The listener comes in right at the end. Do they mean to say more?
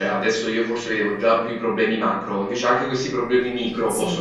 Yes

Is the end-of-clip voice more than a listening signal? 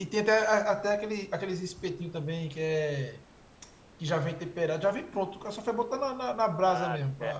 Yes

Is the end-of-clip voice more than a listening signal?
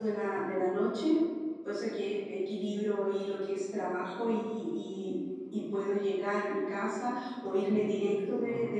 No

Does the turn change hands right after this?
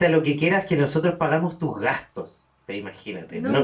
No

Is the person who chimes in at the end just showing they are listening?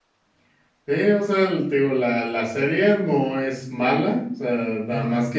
Yes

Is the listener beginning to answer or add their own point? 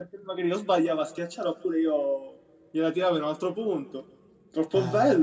Yes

